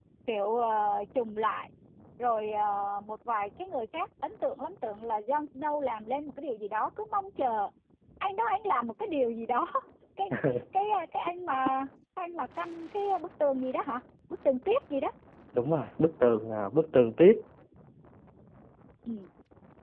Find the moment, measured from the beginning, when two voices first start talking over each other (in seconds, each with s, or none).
none